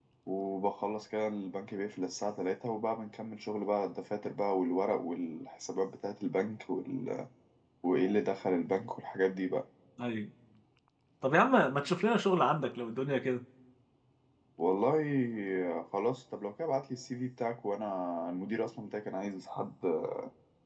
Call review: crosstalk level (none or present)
none